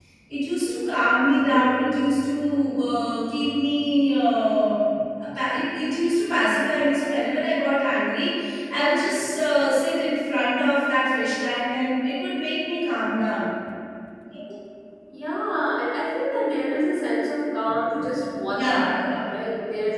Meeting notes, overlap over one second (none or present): none